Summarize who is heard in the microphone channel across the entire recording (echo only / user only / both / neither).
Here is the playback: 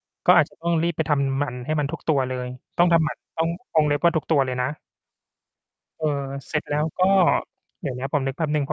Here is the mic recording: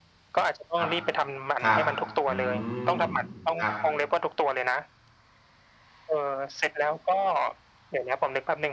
both